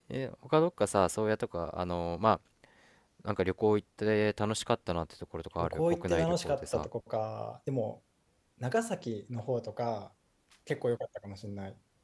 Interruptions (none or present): present